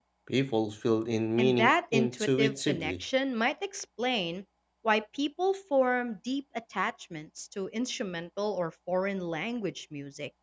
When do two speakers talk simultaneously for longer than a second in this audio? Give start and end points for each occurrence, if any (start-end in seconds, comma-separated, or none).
1.4-3.0